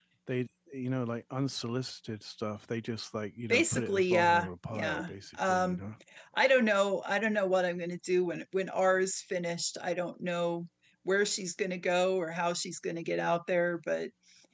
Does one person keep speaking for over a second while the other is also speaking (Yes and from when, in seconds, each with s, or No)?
Yes, from 3.5 s